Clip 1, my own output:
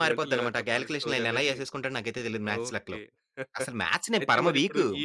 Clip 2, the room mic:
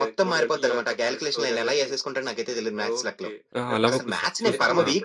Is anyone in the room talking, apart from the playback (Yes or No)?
Yes